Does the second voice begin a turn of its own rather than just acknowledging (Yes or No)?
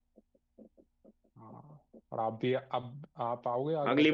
Yes